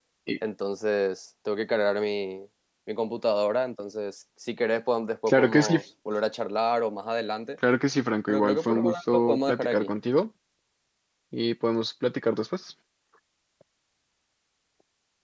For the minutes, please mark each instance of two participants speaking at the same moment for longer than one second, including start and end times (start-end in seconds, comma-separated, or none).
8.3-9.9